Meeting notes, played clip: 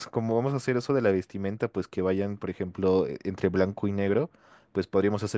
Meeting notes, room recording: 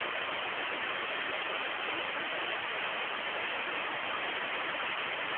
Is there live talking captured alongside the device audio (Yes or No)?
No